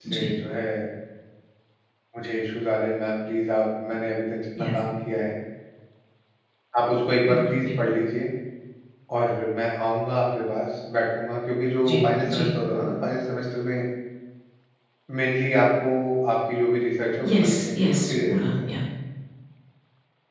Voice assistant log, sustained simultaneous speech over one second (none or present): present